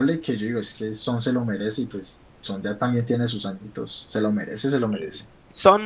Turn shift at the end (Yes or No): Yes